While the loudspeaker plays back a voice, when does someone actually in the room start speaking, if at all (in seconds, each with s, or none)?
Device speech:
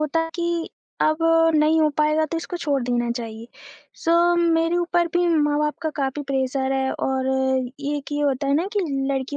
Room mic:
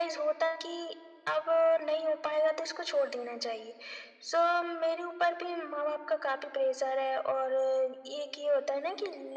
none